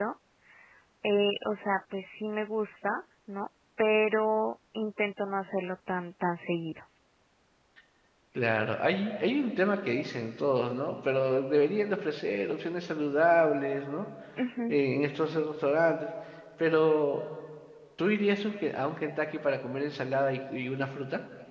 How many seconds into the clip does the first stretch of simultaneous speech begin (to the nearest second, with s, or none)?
none